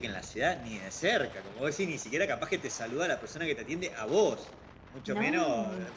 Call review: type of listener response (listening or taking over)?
listening